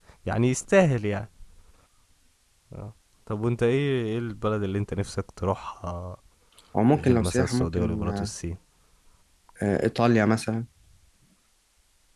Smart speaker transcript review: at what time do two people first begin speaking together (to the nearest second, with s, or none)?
7 s